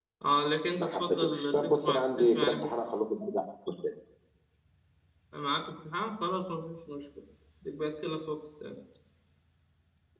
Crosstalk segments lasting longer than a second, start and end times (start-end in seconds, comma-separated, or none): 0.8-2.7